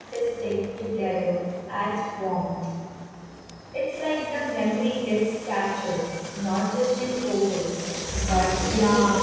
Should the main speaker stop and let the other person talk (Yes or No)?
Yes